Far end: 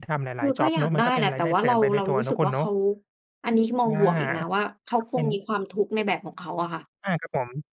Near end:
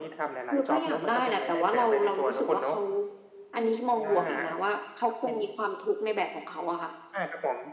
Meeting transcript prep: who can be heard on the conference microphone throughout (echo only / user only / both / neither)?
echo only